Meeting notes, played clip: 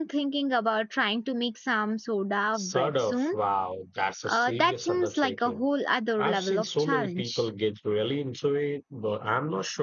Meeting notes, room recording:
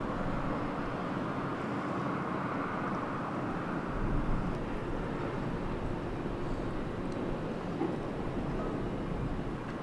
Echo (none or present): none